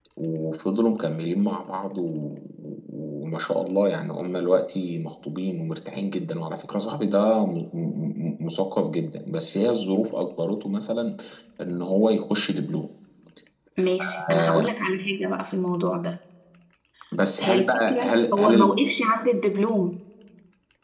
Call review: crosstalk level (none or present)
present